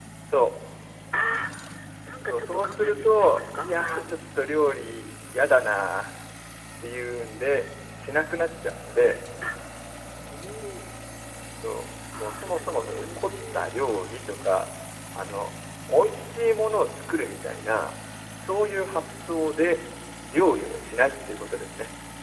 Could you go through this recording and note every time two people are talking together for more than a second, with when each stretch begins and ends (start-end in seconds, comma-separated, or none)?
2.3-4.0, 12.2-13.7